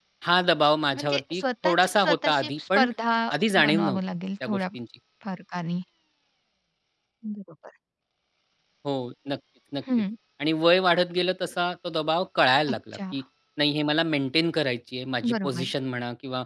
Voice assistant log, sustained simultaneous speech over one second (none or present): present